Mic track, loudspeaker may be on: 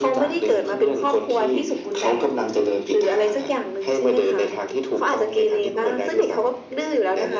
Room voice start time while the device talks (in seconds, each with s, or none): none